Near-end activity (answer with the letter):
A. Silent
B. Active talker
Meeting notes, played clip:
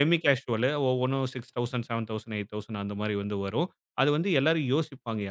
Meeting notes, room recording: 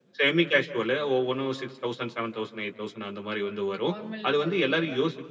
B